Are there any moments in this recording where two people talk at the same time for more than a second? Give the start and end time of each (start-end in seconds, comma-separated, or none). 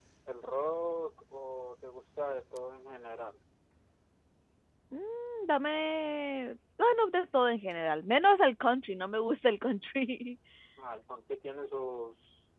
none